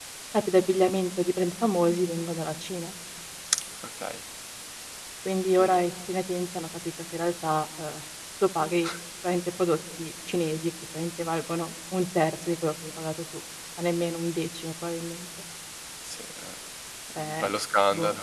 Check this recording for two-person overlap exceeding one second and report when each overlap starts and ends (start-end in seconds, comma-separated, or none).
none